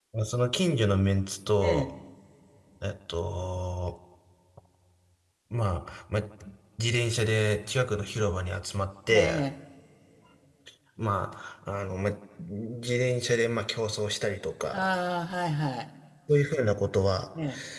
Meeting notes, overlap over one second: none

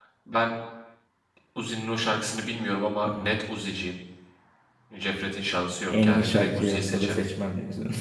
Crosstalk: present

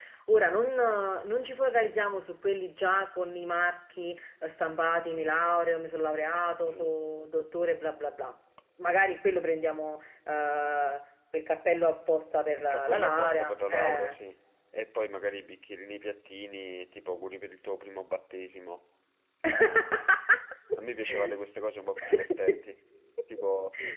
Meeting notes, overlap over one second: present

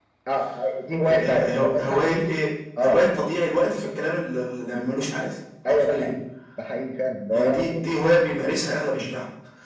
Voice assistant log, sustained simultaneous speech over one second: present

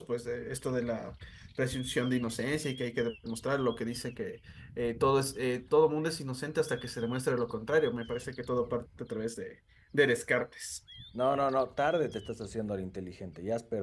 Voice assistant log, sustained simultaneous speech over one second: none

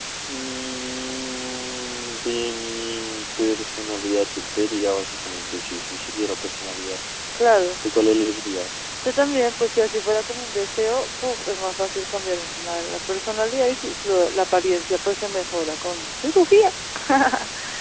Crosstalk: none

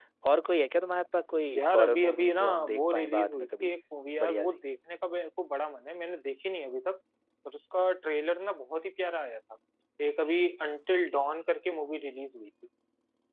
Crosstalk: present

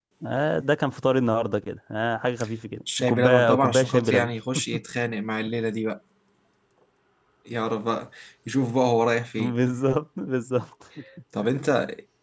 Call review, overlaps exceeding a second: present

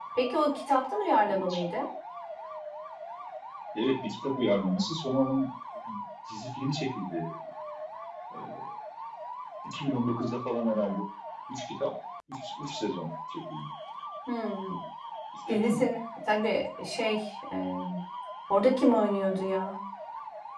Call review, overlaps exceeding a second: none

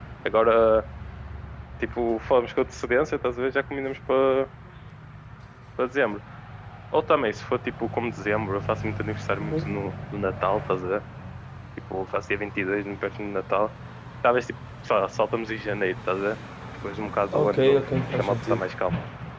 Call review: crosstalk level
present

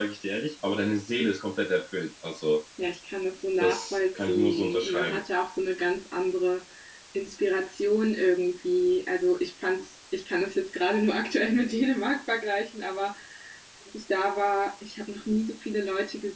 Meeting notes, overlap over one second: present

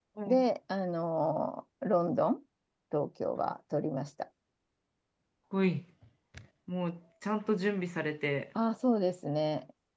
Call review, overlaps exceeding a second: none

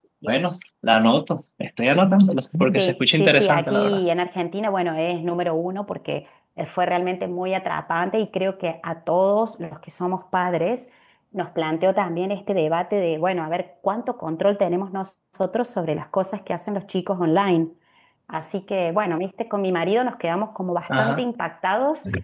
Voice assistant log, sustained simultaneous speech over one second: present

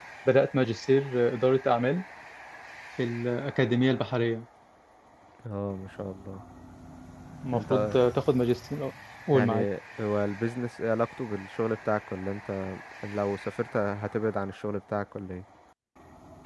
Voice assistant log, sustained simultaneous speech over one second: none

